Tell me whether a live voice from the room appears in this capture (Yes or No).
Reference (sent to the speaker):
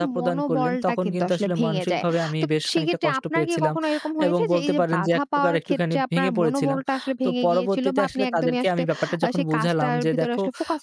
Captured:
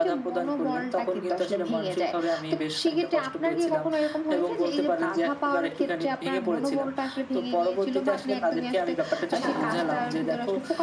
Yes